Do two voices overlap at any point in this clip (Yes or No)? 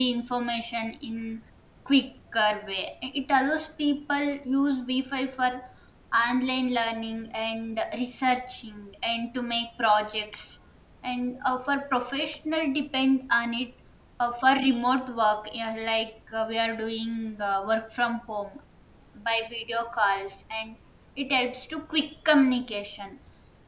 No